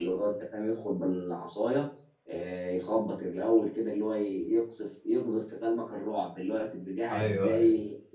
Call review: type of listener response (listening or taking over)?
listening